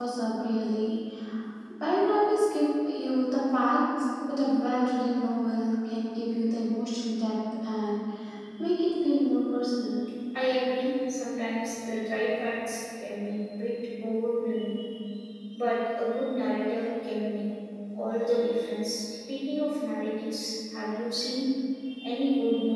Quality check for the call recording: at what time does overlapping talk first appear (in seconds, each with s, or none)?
none